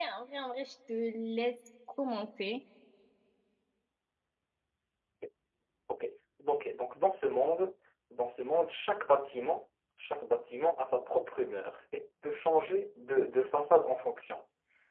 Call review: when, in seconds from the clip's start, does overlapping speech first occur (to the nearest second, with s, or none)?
none